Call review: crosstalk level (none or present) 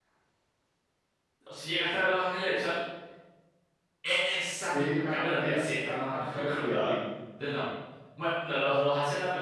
present